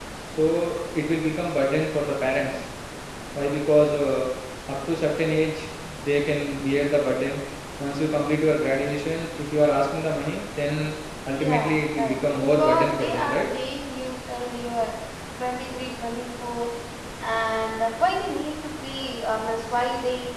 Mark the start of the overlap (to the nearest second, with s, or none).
11 s